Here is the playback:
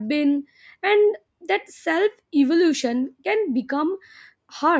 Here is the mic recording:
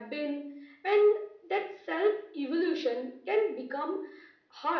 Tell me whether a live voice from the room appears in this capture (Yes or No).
No